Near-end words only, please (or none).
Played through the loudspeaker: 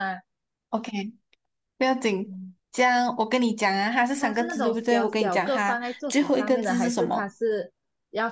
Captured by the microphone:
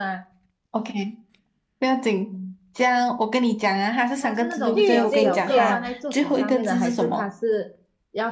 郁金香，